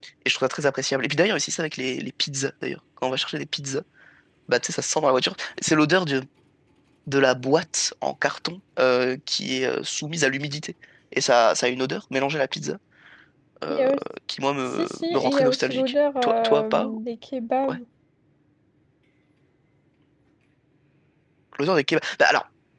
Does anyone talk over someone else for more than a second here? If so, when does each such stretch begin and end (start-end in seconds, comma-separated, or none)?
14.6-16.9